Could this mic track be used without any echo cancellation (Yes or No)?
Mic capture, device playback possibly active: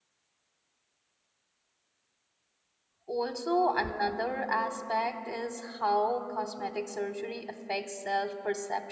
Yes